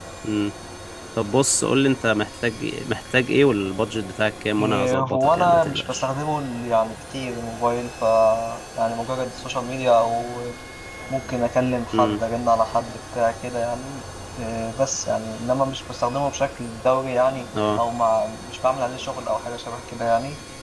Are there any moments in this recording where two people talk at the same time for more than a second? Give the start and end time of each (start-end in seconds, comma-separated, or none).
4.6-6.1